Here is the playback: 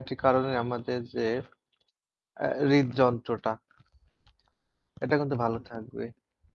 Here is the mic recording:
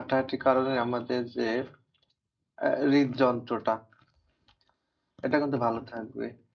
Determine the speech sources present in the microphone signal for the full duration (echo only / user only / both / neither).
echo only